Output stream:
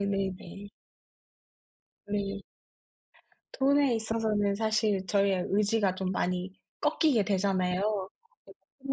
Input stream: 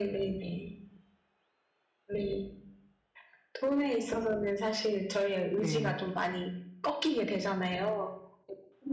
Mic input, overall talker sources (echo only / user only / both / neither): both